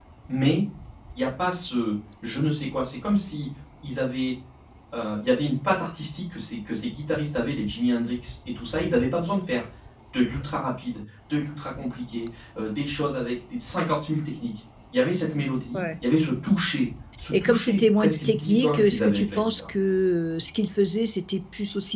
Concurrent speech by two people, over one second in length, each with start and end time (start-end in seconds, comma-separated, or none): 17.3-19.6